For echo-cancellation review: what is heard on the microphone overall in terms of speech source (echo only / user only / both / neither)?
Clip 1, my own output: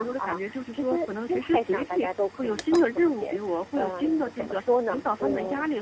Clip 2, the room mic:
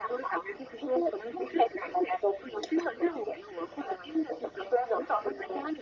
echo only